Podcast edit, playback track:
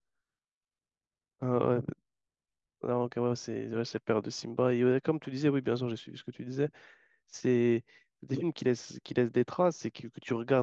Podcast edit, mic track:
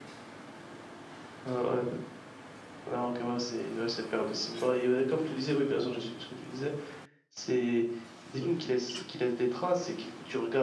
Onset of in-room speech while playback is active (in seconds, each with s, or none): none